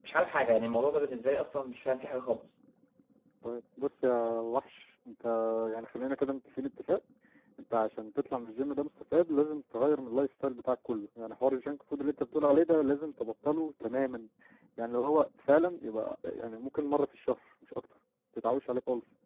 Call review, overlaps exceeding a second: none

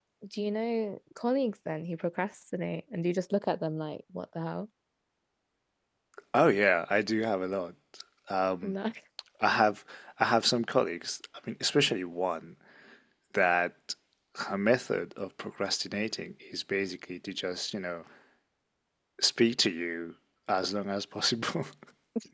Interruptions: none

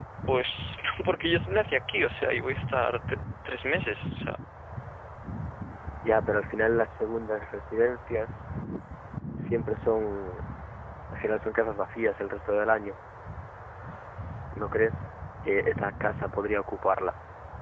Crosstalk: none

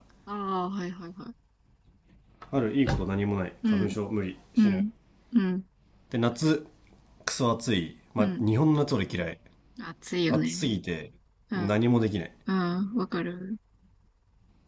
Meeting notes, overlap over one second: none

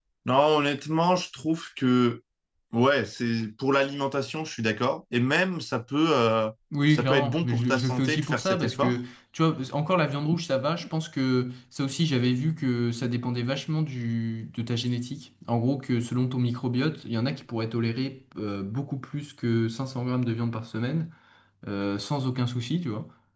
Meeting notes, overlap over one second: present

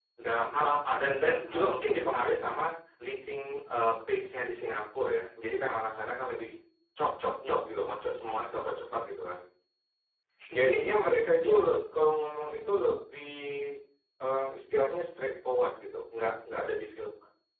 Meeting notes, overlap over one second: present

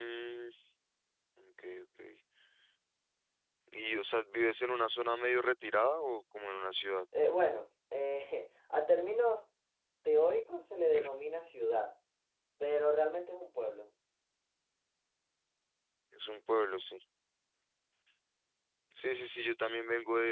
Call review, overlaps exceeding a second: none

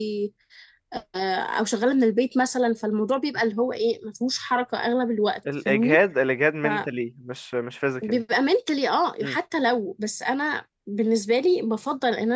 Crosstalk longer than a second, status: none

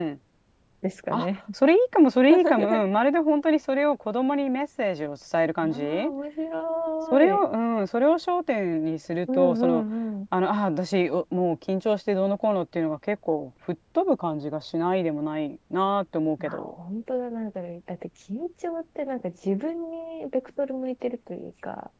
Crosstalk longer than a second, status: none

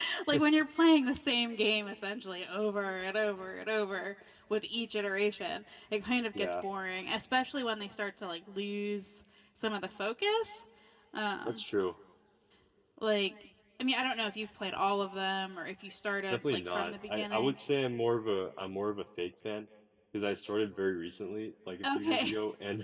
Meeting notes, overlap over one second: present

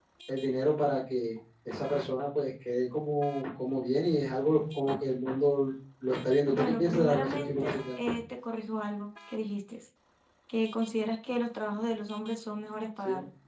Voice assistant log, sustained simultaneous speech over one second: present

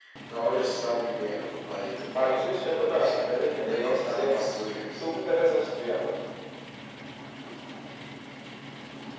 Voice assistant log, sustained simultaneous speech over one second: present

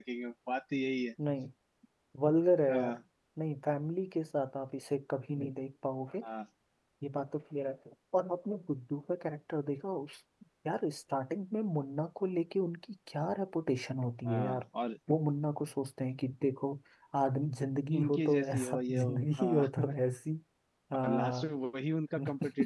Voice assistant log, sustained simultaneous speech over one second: present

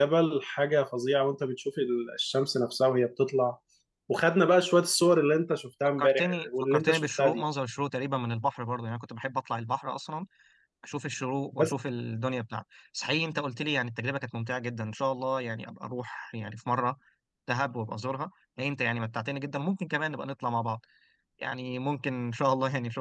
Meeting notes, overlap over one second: present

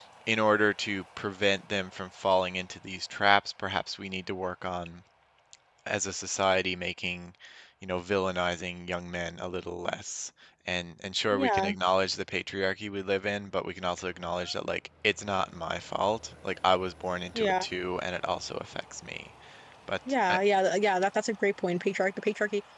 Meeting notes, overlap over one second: none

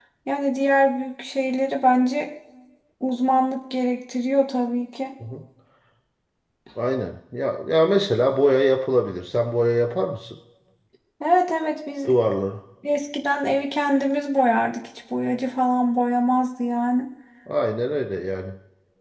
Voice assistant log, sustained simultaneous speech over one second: none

